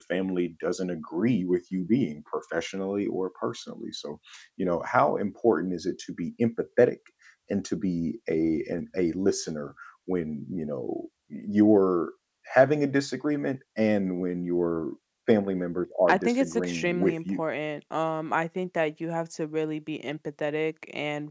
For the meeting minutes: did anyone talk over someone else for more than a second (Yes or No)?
Yes